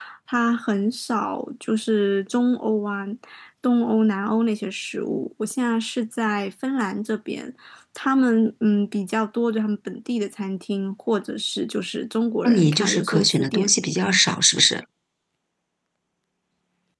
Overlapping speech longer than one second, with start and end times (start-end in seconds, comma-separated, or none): 12.4-13.7